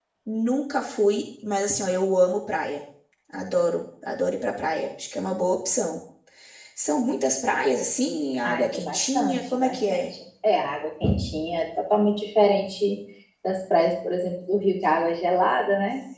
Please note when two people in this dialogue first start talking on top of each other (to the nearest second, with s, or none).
8 s